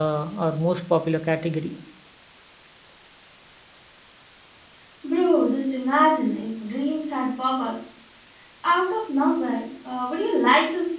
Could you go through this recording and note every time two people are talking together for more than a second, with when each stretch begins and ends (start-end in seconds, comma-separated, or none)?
none